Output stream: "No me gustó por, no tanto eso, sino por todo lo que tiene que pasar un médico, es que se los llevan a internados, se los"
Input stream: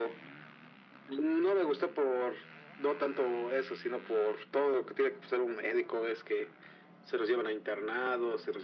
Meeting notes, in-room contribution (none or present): none